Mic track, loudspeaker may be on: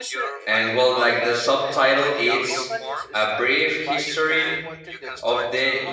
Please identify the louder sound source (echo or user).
user